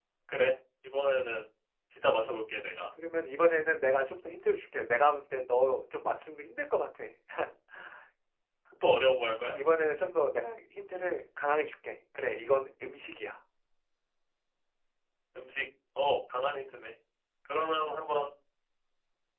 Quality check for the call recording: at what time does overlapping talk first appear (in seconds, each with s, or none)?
none